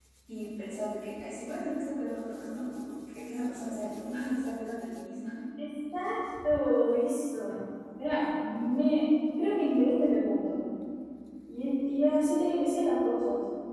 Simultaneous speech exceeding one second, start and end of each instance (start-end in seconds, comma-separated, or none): none